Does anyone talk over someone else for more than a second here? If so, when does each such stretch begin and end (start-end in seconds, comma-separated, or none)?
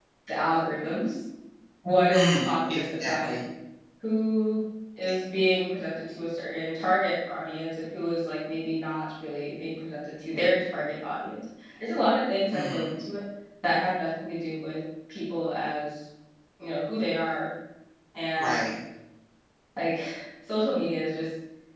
2.1-3.4